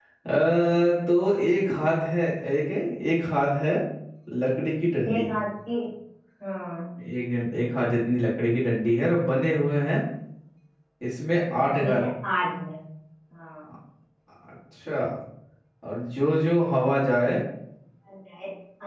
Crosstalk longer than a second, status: none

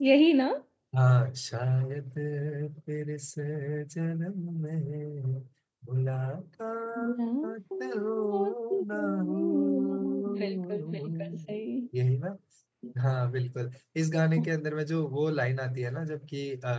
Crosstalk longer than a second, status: present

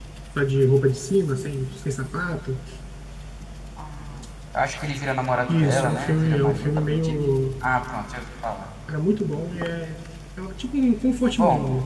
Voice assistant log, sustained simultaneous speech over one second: present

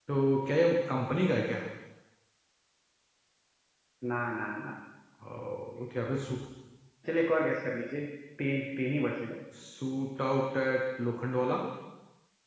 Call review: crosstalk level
none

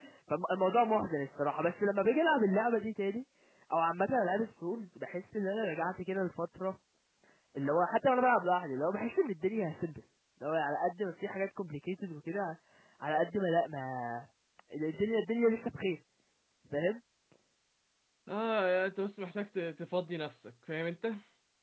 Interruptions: none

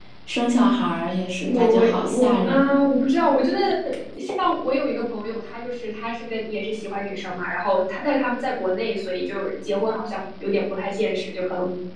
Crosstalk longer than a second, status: present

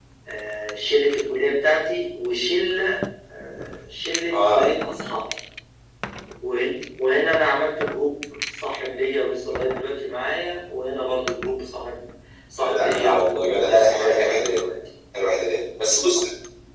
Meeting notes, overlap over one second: present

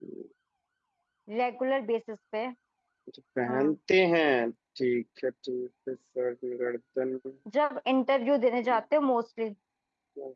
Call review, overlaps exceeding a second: none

